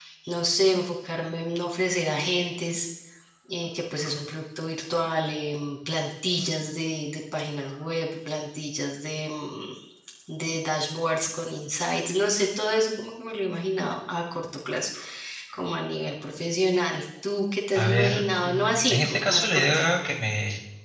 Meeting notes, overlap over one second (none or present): present